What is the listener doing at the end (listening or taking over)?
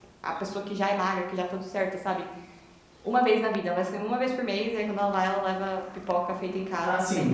taking over